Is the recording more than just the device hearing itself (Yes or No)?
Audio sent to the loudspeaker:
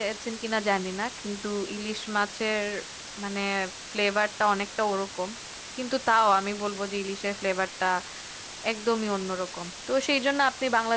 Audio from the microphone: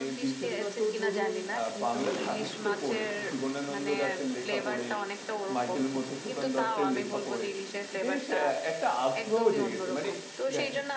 Yes